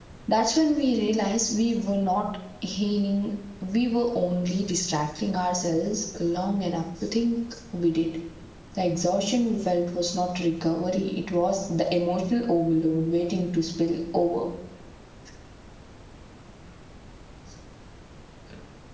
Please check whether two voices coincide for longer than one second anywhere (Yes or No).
No